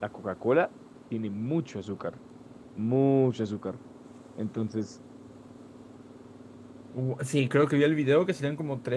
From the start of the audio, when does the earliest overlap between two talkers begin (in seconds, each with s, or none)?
none